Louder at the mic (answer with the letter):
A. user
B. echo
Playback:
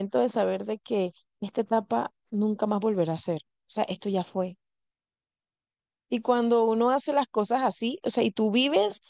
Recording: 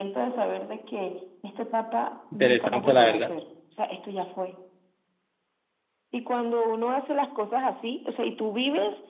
A